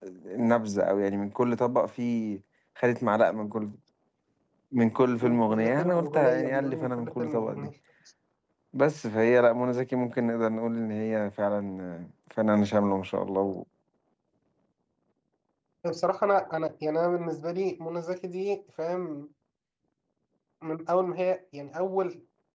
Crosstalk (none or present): present